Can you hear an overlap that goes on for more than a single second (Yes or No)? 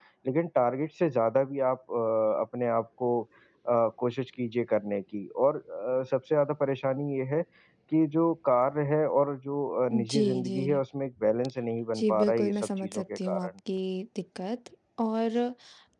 Yes